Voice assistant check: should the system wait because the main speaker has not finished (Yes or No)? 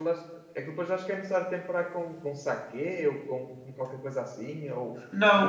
No